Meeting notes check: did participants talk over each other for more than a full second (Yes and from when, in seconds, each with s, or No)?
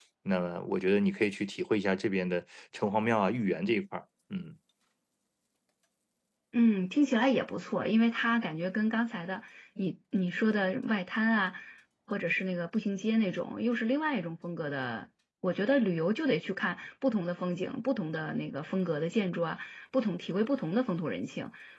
No